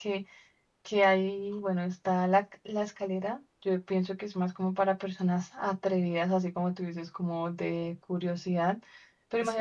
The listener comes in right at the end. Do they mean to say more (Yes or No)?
No